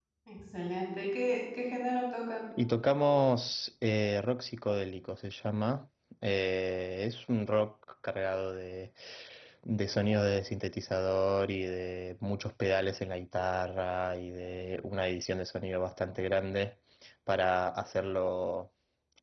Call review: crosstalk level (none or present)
none